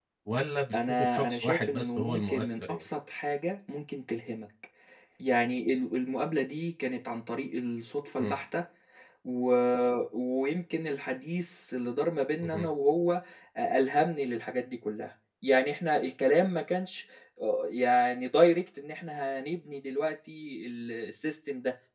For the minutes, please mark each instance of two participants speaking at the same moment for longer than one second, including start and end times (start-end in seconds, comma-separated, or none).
0.7-2.8